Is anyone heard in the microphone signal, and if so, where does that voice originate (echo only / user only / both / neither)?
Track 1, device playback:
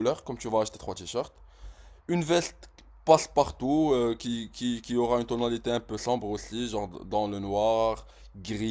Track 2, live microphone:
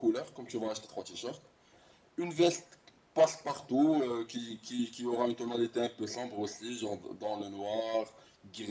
echo only